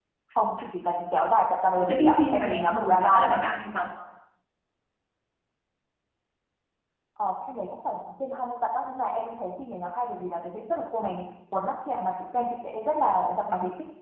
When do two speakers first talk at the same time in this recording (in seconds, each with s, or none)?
1.8 s